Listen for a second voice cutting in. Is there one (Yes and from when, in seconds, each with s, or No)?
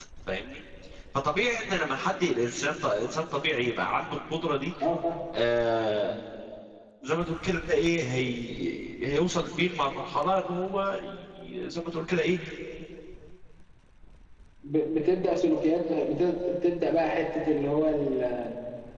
No